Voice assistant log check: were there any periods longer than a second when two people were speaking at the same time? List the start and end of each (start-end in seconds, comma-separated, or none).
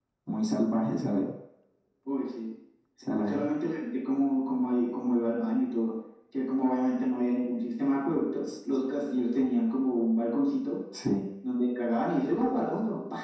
none